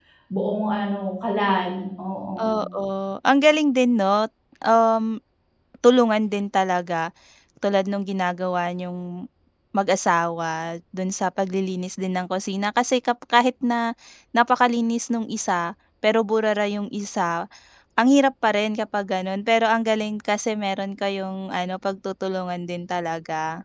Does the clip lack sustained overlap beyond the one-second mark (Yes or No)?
Yes